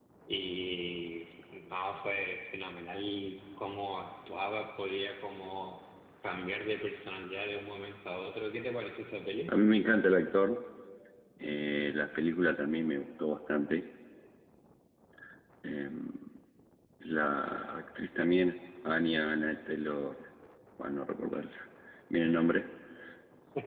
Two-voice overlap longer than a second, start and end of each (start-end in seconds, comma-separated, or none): none